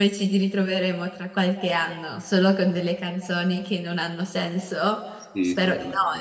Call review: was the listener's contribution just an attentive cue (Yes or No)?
No